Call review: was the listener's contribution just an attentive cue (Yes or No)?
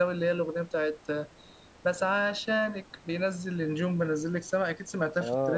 No